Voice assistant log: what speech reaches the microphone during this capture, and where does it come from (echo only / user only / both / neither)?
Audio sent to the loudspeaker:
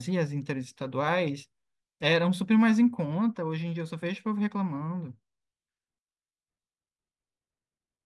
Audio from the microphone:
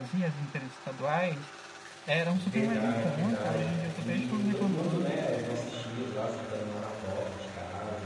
both